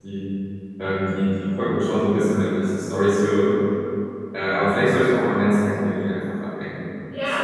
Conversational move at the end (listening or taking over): taking over